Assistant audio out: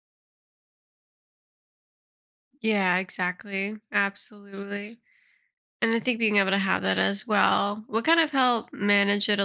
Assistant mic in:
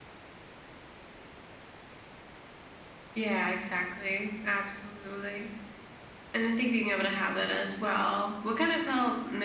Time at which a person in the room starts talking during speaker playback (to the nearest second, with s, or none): none